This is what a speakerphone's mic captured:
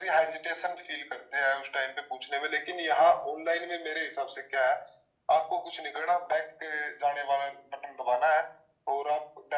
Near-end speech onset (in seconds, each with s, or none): none